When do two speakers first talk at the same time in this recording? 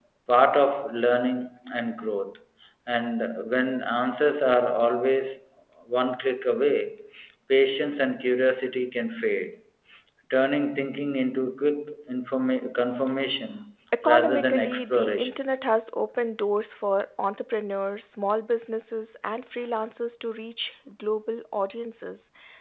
14 s

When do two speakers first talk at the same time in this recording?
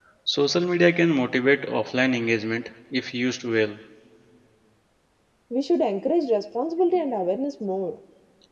none

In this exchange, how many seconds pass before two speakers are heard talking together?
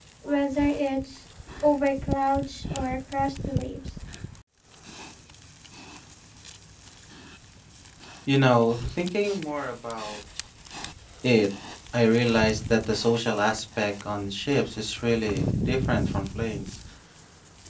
none

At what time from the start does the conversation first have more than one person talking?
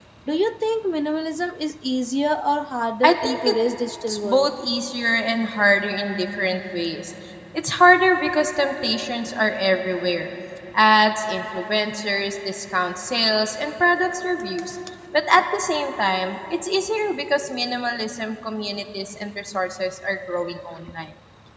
3 s

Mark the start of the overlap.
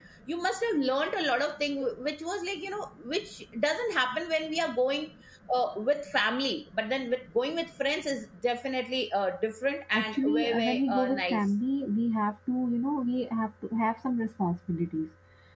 10 s

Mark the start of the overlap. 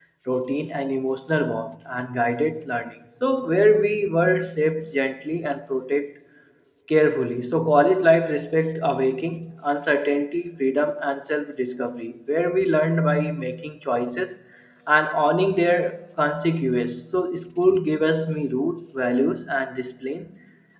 none

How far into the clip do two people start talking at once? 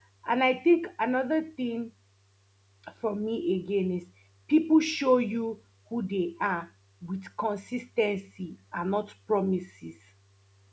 none

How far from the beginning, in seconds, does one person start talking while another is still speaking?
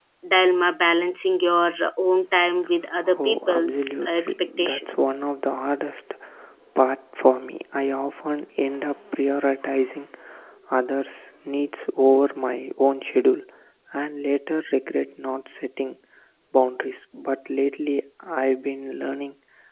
3 s

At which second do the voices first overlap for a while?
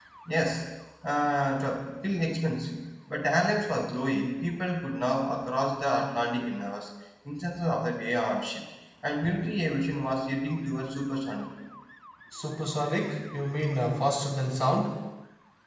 none

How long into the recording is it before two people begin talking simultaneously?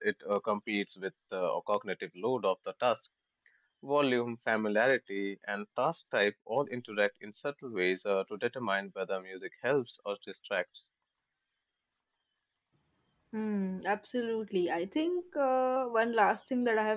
none

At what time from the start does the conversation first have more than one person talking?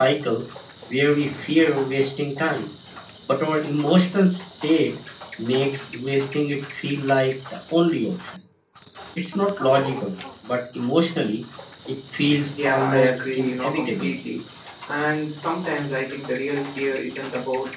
13 s

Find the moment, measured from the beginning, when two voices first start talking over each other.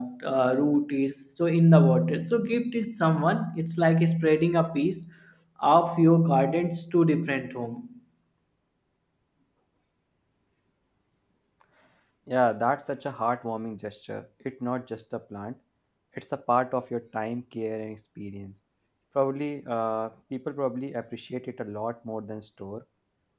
none

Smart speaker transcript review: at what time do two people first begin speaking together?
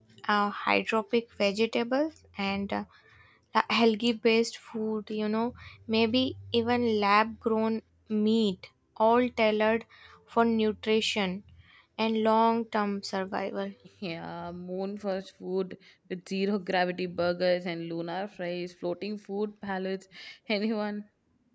none

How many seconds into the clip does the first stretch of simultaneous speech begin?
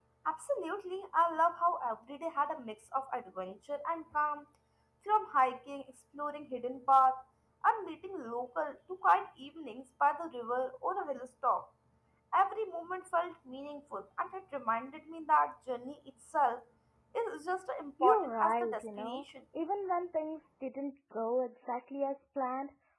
18 s

